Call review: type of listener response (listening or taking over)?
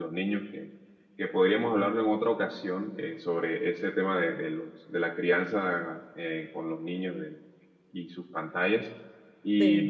listening